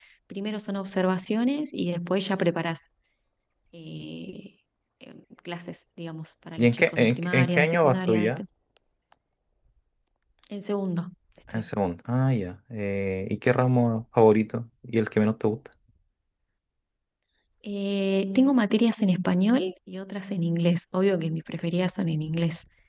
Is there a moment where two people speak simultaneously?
Yes, from 6.6 s

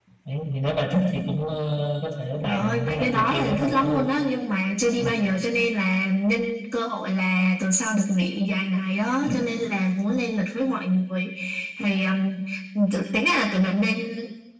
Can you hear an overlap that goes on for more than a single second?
Yes, from 2.4 s

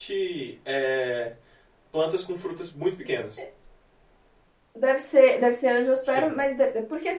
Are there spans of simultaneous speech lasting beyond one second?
No

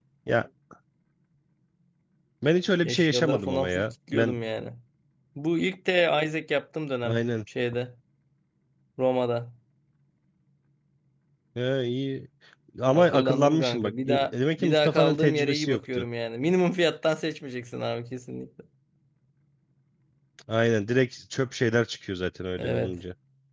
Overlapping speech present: Yes, from 2.8 s

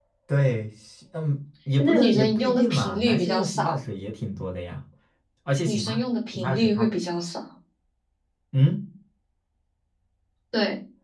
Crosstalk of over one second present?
Yes, from 1.8 s

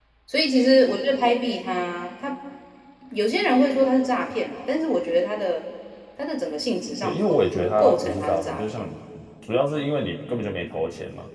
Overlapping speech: Yes, from 7.0 s

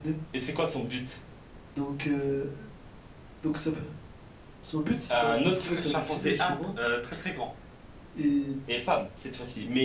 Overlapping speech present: Yes, from 5.1 s

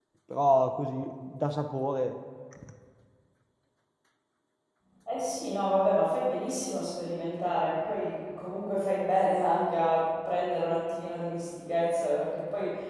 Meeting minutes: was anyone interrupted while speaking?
No

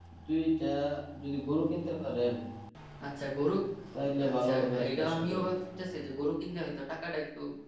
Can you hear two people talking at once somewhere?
Yes, from 3.9 s

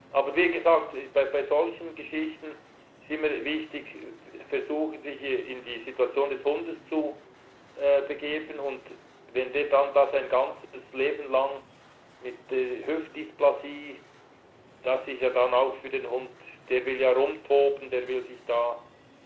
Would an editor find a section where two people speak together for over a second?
No

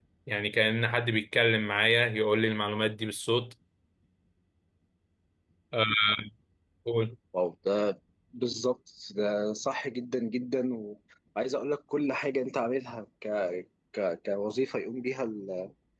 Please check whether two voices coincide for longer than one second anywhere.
No

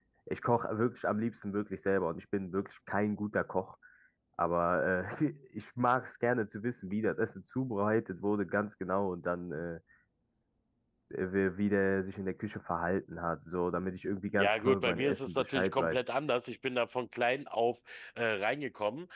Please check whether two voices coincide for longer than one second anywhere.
Yes, from 14.4 s

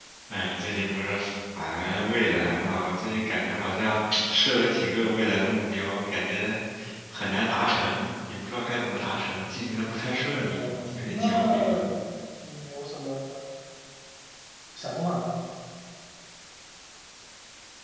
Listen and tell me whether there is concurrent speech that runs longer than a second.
Yes, from 10.3 s

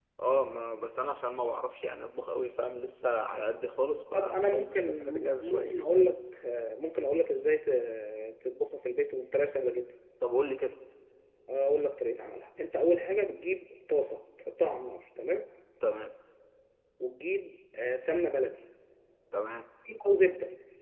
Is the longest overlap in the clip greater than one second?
Yes, from 4.1 s

